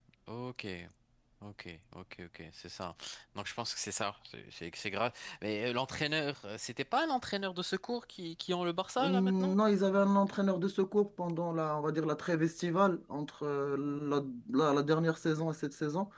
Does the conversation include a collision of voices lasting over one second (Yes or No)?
No